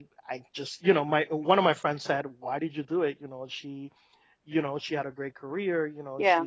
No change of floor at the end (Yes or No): Yes